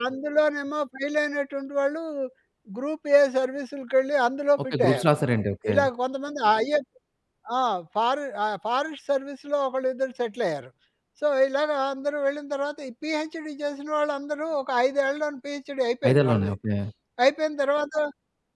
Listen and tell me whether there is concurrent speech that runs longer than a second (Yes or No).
No